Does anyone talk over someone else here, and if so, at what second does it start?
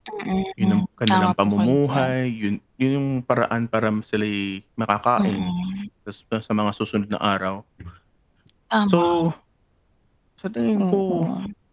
0.6 s

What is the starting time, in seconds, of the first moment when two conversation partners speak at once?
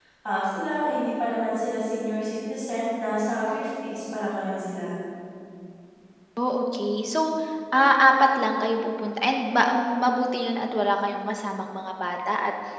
none

